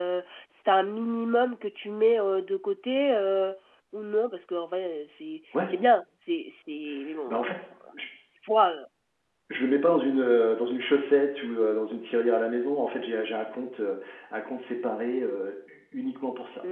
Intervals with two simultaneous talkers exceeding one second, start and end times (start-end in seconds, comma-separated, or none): none